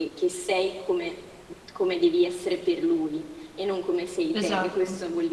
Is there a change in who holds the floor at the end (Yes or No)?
No